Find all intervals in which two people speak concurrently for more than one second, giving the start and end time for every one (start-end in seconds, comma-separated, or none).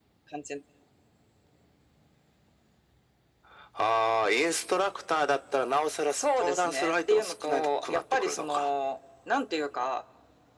6.1-8.7